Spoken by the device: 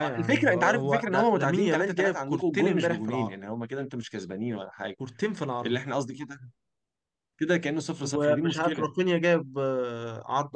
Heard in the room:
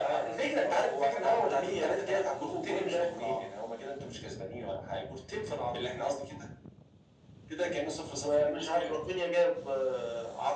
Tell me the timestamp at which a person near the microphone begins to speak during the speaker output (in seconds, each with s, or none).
none